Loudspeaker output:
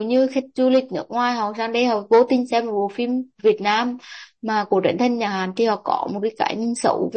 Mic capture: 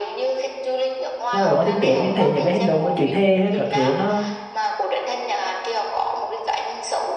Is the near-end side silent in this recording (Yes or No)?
No